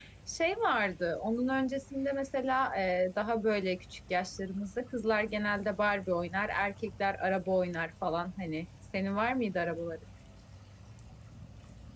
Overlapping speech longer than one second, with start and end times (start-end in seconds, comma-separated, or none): none